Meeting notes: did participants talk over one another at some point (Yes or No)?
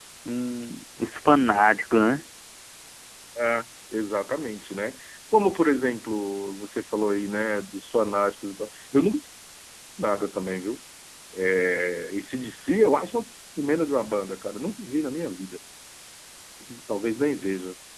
No